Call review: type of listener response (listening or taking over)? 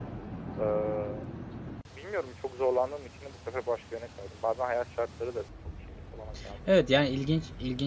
taking over